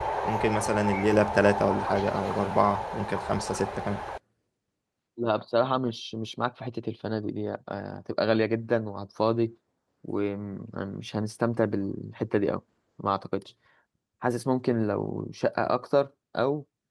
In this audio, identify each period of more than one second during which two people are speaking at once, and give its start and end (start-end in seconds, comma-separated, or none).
none